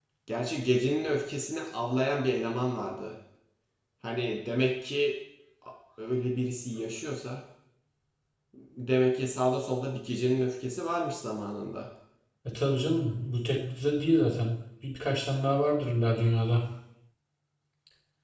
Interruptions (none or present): none